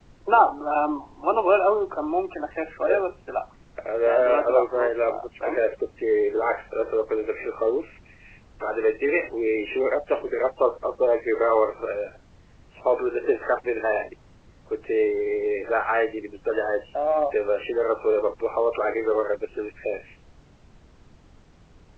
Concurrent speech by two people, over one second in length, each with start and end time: 4.0-5.6

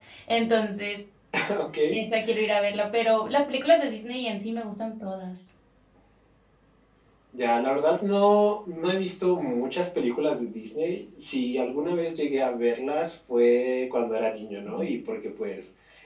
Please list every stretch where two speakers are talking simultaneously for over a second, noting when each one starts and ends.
none

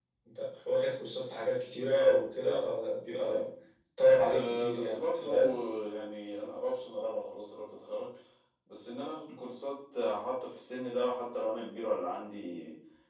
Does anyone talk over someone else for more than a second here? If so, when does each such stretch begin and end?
4.0-5.3

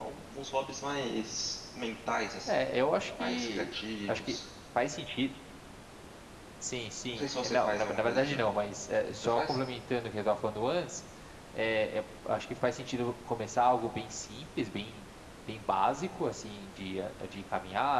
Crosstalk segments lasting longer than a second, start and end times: 7.1-8.4

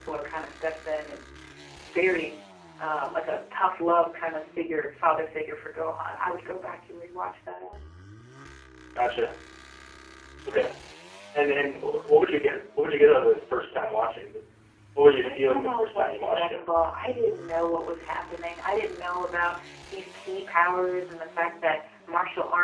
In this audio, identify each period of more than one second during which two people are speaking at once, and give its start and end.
15.0-16.6

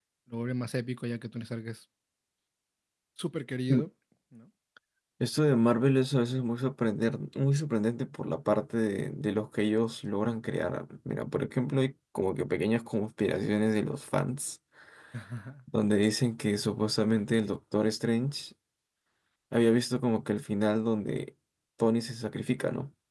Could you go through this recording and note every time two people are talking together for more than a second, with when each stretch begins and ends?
none

